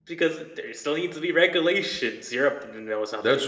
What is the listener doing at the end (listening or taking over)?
taking over